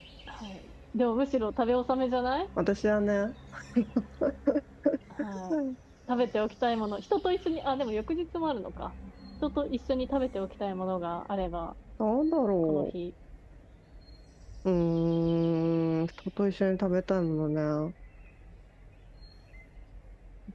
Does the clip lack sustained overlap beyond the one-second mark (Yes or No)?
Yes